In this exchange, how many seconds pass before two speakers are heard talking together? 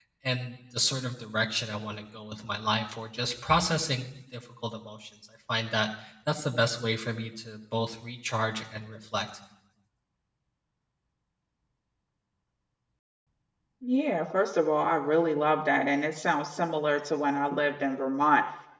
none

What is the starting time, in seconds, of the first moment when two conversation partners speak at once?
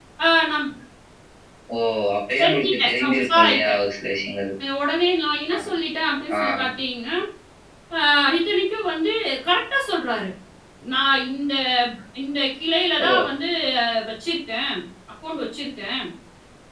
2.4 s

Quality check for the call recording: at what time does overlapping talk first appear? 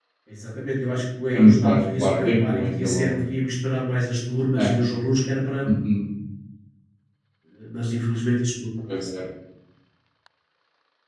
1.3 s

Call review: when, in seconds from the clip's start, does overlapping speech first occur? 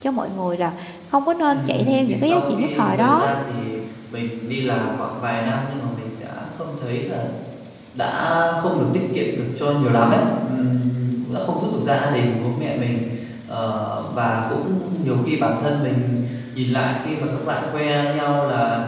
1.5 s

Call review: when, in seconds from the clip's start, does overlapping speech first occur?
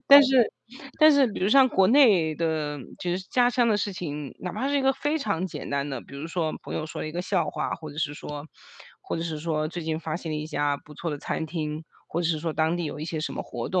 none

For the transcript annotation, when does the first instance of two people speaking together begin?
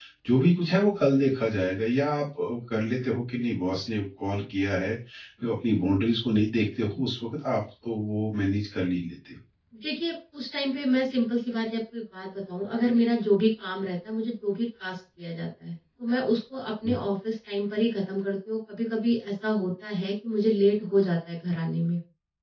none

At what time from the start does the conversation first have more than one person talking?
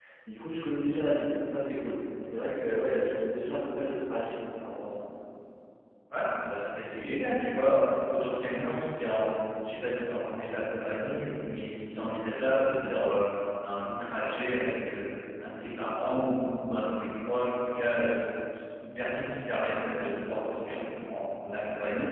none

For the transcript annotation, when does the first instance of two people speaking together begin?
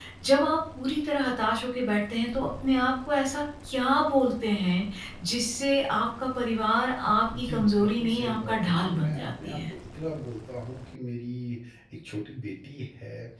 7.3 s

